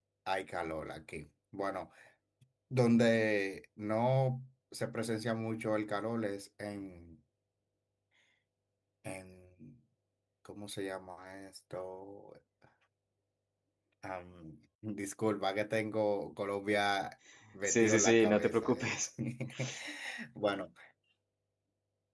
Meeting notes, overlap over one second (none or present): present